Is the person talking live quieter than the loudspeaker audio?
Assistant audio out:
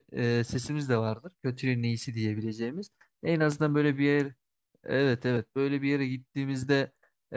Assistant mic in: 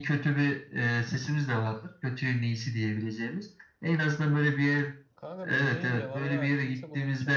Yes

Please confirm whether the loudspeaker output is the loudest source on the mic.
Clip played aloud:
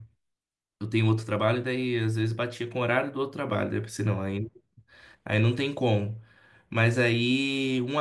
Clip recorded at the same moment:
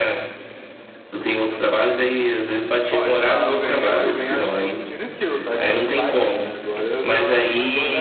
Yes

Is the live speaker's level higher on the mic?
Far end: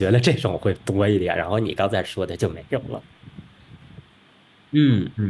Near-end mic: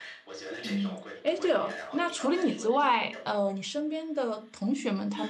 Yes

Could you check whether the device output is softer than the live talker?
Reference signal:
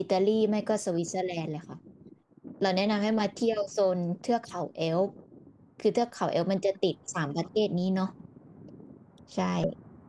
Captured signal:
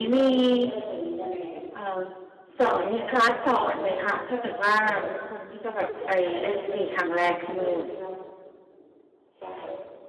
Yes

